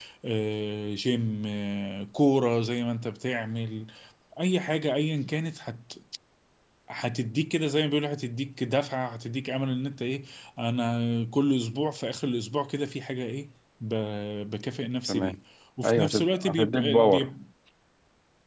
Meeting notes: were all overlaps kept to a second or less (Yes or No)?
No